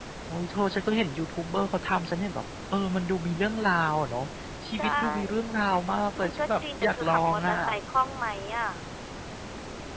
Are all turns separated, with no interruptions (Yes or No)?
No